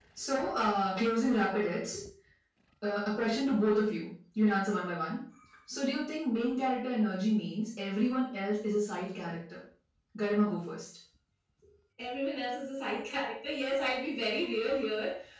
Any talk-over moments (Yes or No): No